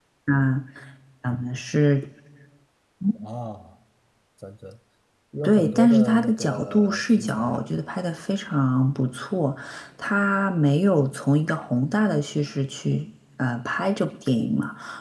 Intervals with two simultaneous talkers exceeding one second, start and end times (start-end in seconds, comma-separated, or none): 5.4-7.7